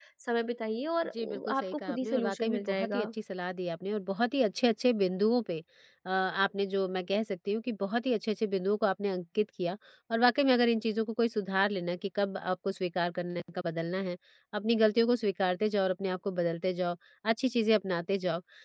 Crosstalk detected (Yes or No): Yes